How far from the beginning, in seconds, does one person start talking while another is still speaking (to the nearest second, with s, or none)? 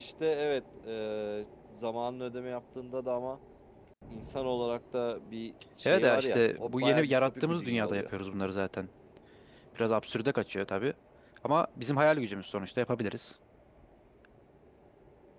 6 s